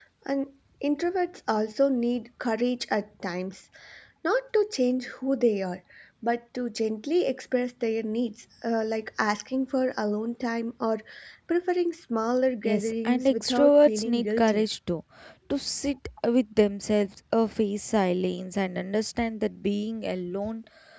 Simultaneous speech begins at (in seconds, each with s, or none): 12.6 s